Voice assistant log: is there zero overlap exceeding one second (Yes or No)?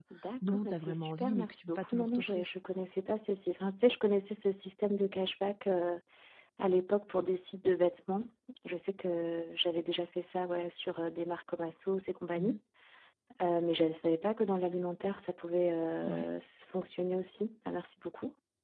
No